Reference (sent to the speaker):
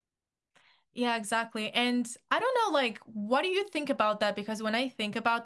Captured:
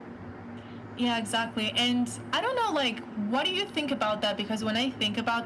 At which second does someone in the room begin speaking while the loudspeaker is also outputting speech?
none

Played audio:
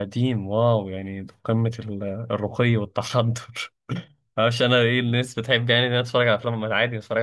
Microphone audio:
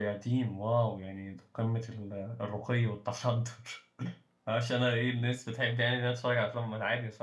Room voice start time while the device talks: none

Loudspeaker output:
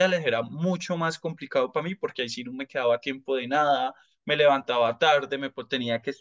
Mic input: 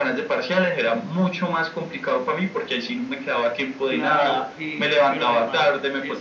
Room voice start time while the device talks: 3.8 s

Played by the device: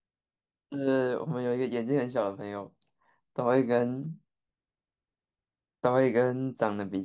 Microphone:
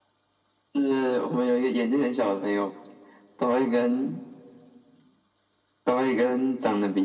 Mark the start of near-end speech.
none

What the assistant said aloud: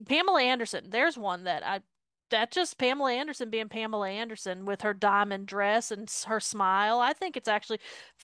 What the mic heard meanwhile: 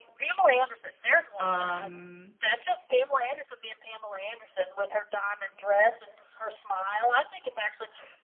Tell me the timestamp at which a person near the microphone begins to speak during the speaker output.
1.4 s

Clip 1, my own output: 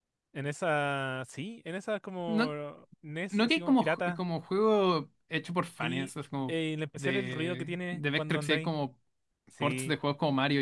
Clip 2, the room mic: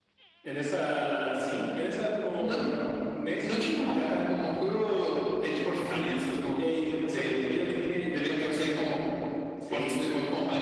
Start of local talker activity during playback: none

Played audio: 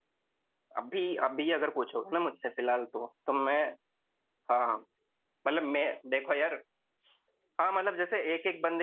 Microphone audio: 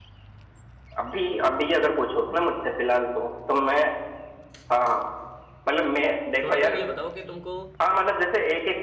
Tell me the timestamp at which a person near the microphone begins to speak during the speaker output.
6.4 s

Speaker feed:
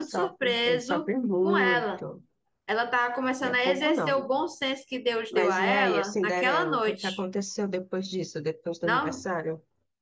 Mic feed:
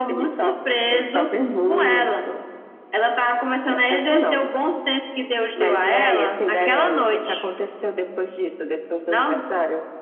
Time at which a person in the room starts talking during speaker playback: none

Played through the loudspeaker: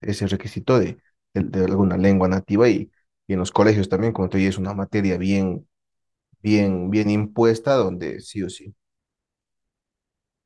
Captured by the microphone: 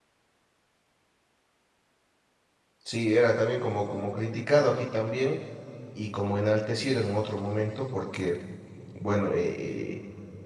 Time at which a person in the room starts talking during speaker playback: 2.8 s

